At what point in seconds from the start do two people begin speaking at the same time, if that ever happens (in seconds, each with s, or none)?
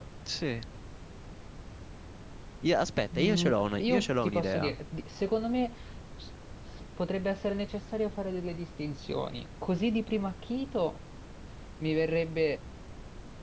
3.1 s